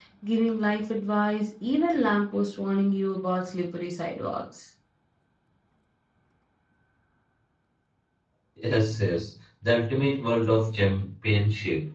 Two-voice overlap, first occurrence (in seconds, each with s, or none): none